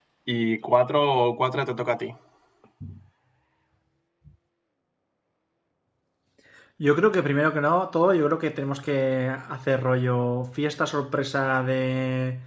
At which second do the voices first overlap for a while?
none

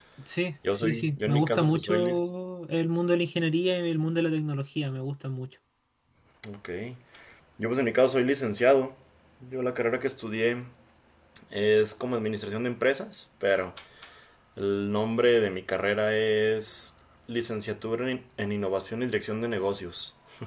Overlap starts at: 1 s

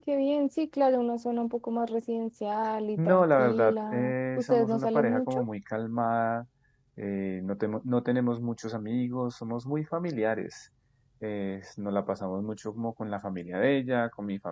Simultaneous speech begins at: 3 s

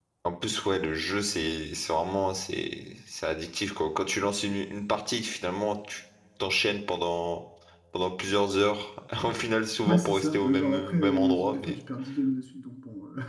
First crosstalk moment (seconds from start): 10 s

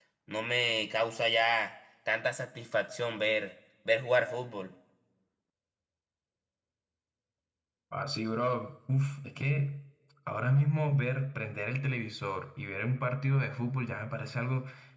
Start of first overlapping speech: none

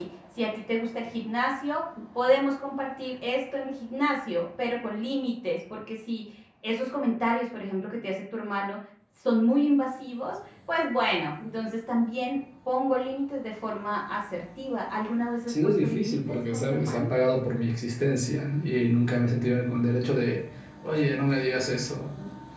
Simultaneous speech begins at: 15 s

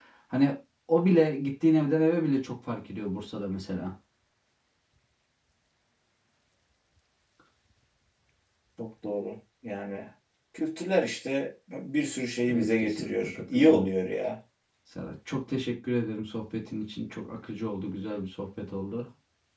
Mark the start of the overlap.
12 s

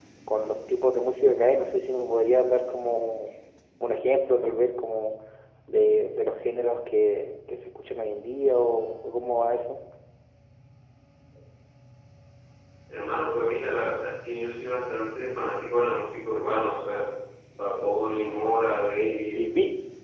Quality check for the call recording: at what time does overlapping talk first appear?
none

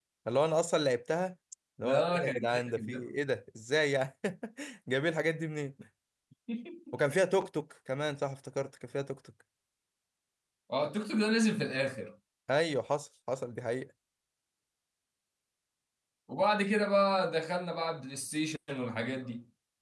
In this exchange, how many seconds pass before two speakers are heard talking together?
2 s

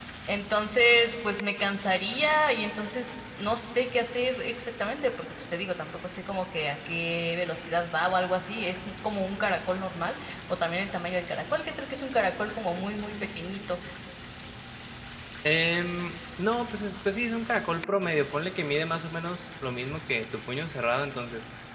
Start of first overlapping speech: none

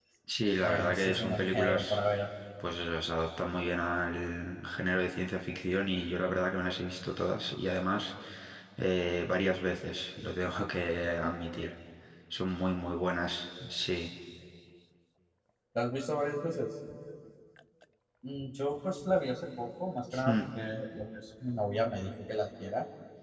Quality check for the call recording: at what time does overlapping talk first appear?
1 s

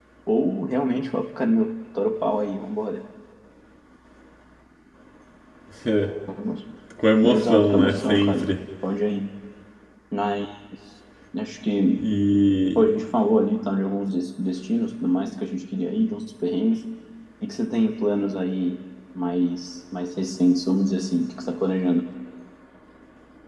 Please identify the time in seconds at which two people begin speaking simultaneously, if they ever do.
7 s

